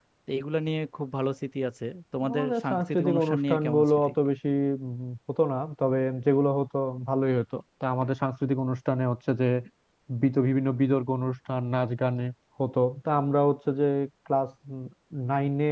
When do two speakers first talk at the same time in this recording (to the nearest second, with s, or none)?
2 s